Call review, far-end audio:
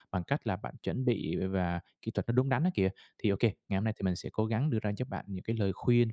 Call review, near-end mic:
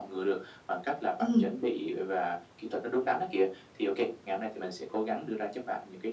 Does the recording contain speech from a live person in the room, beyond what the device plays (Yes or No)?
Yes